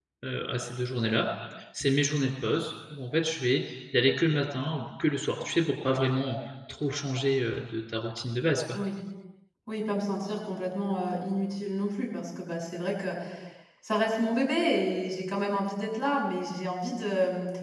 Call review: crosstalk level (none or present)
none